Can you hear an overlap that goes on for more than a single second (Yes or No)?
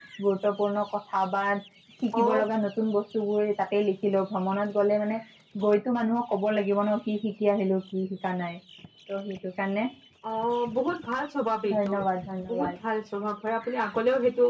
No